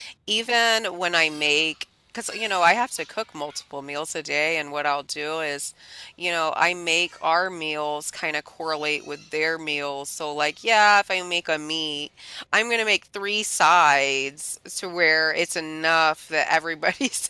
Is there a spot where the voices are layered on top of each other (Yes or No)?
No